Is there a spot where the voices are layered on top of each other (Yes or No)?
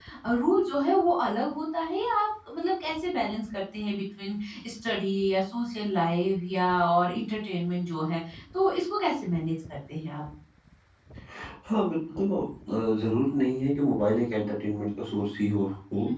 No